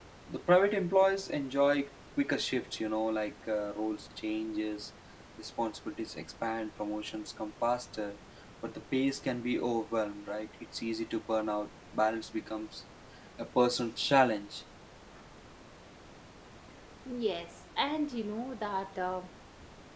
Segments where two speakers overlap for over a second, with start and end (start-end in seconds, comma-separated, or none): none